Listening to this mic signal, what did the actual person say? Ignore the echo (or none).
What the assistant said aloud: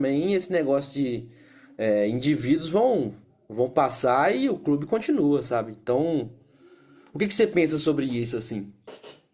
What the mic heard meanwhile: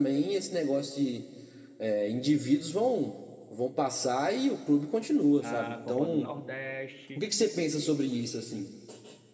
a Copa do Nordeste,